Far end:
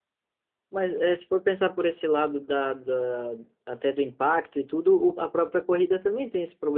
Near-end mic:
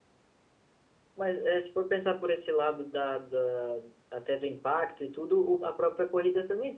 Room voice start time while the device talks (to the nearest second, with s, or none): none